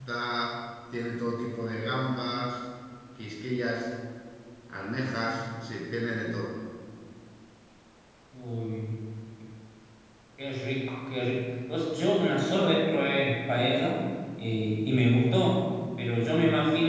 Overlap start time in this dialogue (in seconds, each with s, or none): none